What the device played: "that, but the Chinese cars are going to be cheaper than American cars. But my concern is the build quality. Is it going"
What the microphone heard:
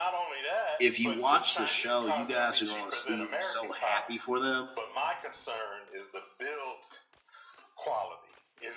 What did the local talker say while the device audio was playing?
if you watch the show, you guys are going to see me so happy for them.

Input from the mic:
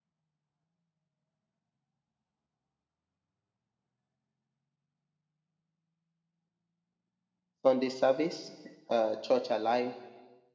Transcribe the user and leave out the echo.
Sunday service, uh, Church Alive.

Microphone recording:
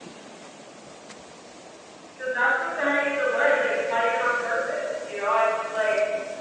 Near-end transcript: because that's the prayer I need to learn. Like, it's not even on purpose, you know? I just like,

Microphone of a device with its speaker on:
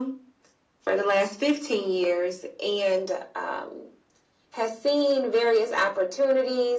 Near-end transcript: none

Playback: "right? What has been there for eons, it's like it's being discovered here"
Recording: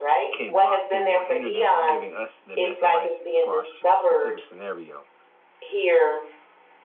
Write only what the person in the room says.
can block them or hinder them from giving us the best advice for our s- specific scenario.

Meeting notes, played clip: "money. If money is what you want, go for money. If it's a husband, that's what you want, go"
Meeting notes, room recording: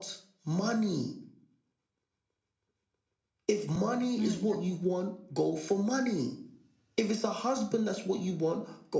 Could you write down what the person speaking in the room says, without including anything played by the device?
Yeah, yeah.

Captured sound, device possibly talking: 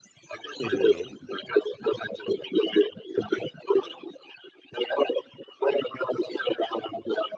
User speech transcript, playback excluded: hmm

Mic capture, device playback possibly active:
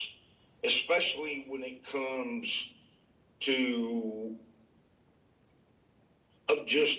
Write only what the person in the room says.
none

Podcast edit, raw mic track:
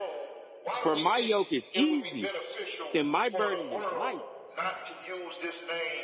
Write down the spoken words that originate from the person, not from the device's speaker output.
For my yoke is easy and my burden is light.

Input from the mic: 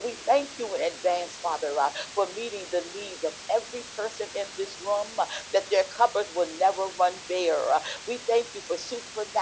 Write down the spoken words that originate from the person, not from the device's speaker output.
none

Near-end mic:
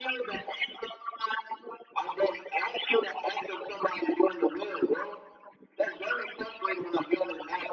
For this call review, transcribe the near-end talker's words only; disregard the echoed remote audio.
none

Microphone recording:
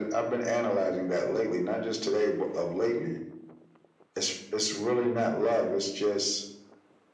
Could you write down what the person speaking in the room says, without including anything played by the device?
none

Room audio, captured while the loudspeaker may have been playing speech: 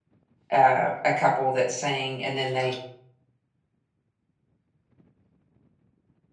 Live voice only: uh, a couple that sing, and then they

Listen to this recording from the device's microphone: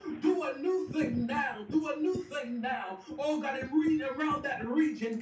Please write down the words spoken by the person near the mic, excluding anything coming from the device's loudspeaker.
none

